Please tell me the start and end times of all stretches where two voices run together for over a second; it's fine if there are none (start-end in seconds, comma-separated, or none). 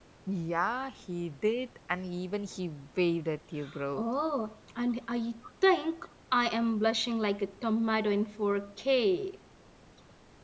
none